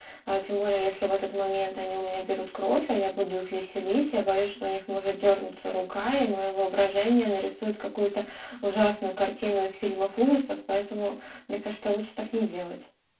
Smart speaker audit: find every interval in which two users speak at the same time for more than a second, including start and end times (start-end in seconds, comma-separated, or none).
none